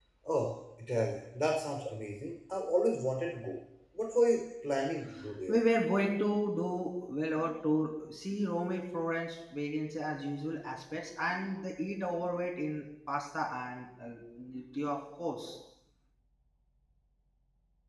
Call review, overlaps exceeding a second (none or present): none